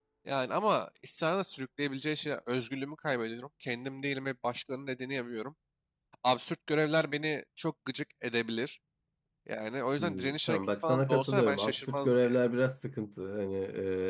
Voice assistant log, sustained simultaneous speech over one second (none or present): present